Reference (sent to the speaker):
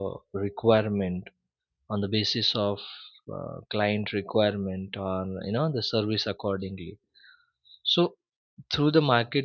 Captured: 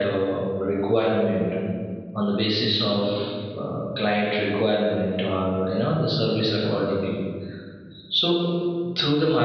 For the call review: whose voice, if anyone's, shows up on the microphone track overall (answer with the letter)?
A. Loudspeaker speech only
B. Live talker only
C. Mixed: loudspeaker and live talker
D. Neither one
A